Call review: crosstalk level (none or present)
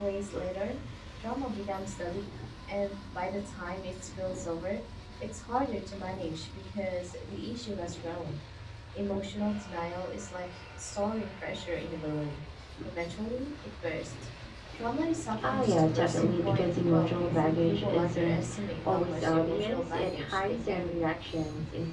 present